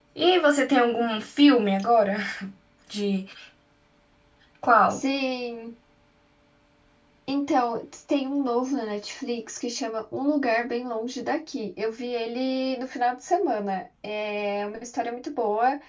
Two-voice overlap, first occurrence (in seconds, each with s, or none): none